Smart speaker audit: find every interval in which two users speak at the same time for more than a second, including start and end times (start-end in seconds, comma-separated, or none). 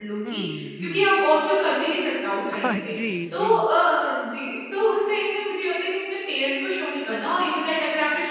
none